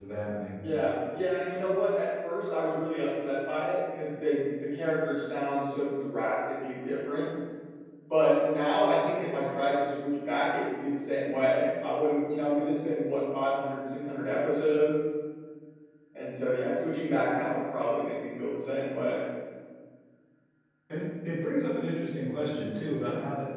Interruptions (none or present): none